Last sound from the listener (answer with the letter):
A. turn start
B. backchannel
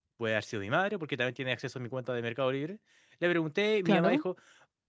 B